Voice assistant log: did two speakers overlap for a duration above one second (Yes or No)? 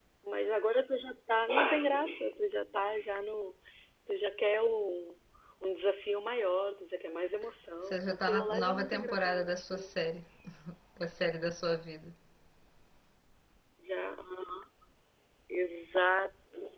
Yes